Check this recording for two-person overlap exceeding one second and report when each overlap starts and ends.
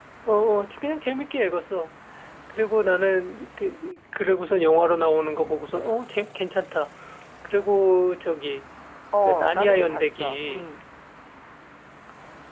9.2-10.7

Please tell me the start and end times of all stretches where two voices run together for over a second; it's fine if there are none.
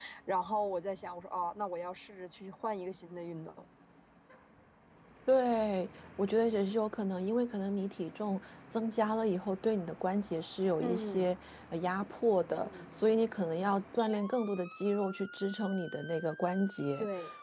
none

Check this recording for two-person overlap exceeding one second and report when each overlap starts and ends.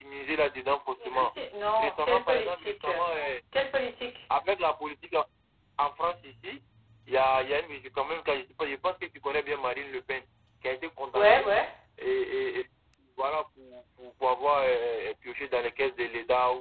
1.8-3.0

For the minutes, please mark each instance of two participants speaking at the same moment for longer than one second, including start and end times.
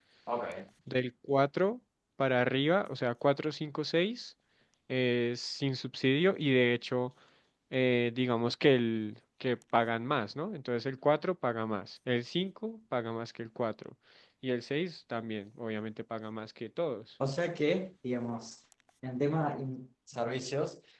none

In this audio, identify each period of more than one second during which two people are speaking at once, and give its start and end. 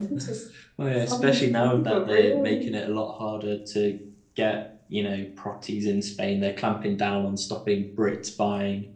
1.1-2.6

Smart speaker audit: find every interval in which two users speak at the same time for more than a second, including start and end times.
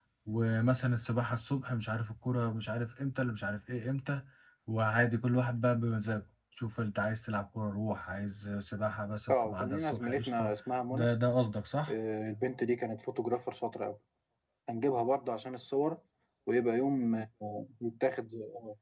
9.3-10.5

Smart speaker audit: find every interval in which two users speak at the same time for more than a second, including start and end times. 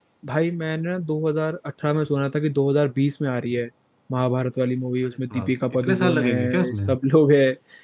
5.3-6.9

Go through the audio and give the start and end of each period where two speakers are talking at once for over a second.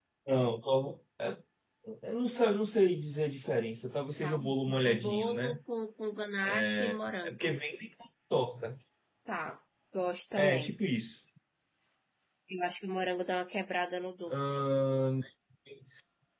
4.2-5.6

